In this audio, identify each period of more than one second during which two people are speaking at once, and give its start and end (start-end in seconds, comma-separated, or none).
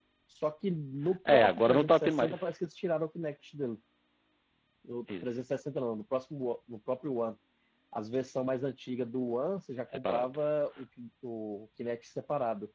1.3-2.5